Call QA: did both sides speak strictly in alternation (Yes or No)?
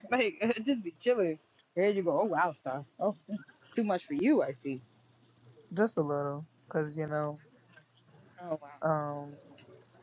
Yes